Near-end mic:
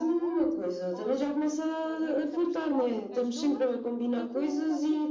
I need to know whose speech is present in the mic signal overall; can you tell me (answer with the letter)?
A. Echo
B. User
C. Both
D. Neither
C